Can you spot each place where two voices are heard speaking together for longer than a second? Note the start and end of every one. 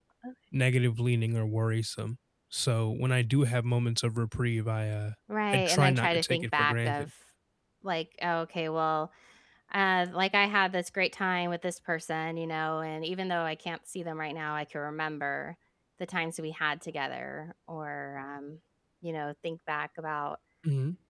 5.5-7.1

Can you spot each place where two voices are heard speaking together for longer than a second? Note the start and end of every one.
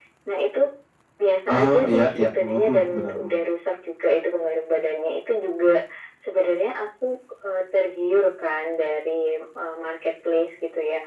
1.5-3.3

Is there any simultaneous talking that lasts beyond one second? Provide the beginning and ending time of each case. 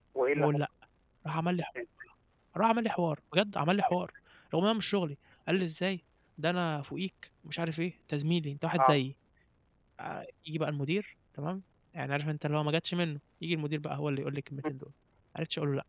none

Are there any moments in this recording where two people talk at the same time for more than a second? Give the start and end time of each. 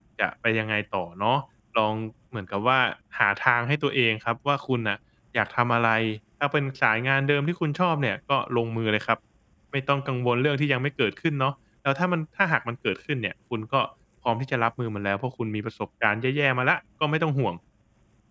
none

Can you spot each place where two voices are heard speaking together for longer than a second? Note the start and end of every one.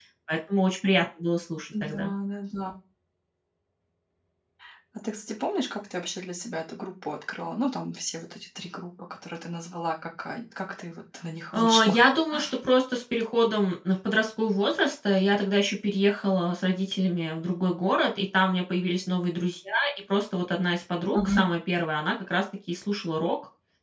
none

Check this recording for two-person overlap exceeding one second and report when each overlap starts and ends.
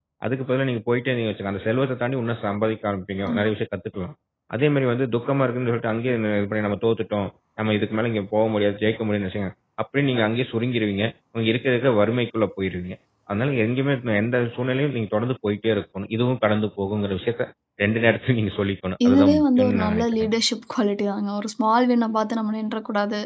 19.1-20.3

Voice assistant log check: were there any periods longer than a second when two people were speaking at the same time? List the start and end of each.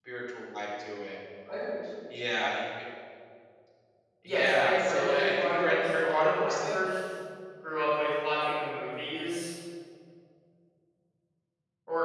4.3-6.9

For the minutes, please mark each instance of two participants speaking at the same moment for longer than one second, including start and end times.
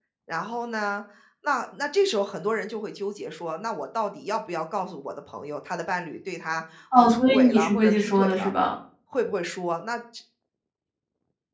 6.9-8.5

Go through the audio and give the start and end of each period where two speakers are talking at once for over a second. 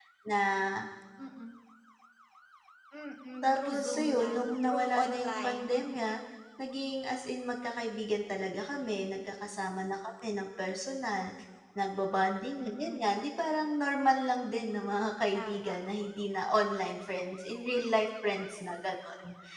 3.4-5.8

